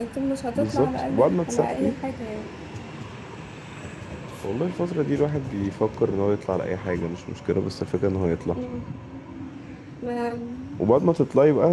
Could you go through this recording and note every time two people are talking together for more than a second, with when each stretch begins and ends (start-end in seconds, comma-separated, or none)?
0.6-1.9